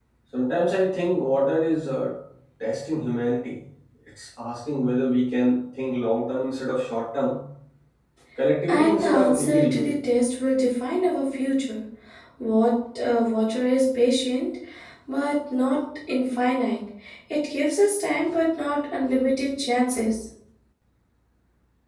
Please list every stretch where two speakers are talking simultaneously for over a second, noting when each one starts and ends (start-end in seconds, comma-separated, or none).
8.7-9.9